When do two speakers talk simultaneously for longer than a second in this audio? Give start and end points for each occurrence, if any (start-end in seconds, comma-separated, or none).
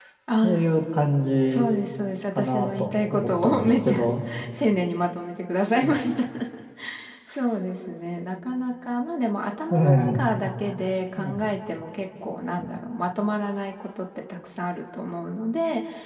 2.4-4.0